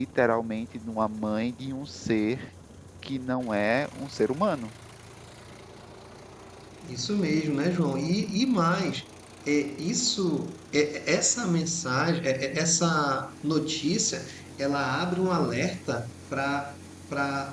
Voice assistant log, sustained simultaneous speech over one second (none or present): none